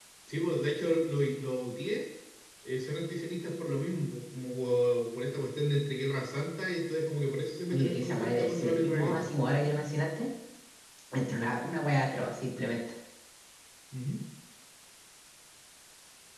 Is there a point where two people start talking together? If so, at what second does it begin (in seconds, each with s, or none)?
7.7 s